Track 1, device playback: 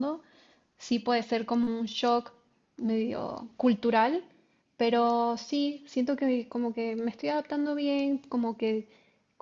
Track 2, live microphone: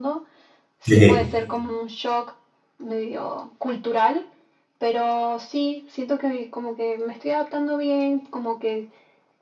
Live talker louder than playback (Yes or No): Yes